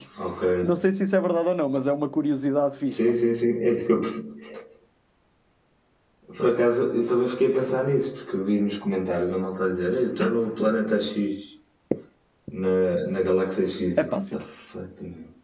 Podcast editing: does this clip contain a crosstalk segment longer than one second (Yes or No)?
No